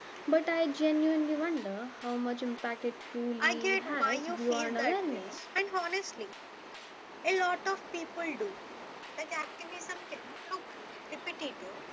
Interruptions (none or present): present